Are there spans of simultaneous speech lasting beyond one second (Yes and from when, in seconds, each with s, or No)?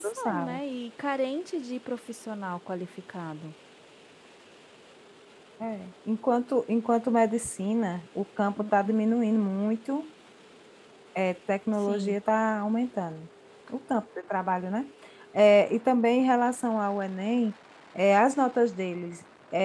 No